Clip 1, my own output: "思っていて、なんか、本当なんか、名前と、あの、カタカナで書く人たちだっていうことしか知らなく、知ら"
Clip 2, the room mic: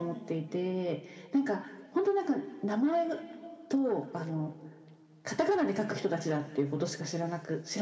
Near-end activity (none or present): none